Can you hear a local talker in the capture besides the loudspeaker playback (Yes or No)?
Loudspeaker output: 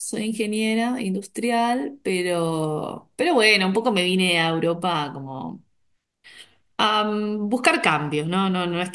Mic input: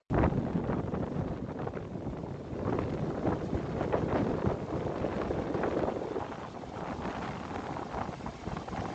No